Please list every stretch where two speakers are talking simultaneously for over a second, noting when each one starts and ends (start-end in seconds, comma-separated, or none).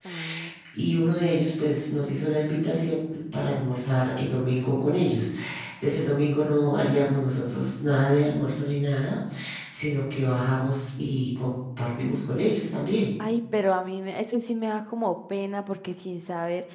none